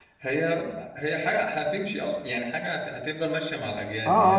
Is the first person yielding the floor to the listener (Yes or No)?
Yes